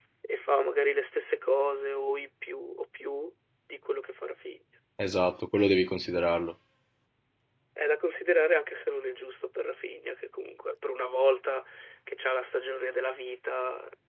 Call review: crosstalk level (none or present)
none